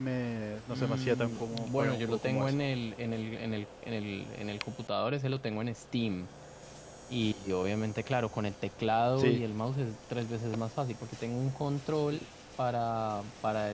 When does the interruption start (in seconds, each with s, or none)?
0.7 s